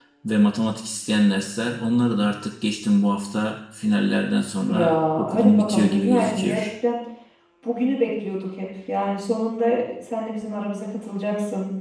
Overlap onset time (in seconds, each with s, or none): 4.7 s